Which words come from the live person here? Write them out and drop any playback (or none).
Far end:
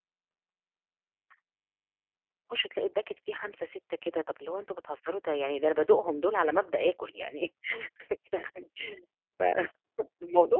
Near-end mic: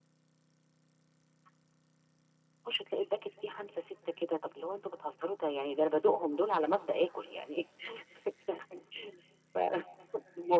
none